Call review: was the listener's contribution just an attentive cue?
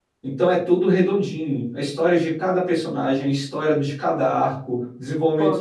Yes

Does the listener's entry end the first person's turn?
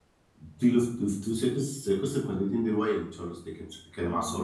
No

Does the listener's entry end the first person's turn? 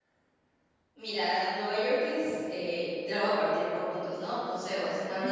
No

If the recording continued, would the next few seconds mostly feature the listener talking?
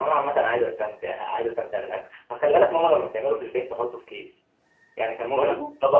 No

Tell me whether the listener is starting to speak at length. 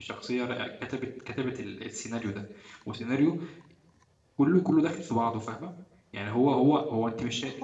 Yes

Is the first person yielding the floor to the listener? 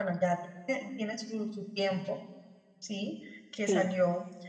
No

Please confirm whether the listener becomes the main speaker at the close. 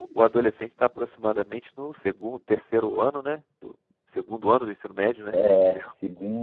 Yes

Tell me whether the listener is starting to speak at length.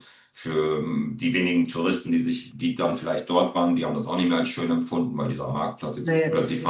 No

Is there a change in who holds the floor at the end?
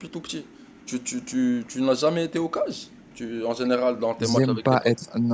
Yes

